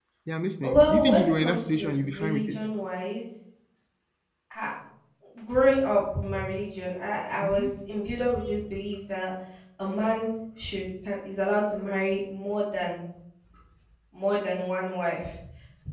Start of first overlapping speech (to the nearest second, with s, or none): 1 s